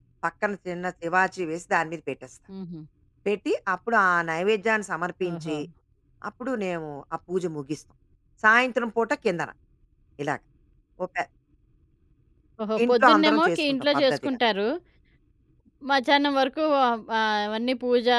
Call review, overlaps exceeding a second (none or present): present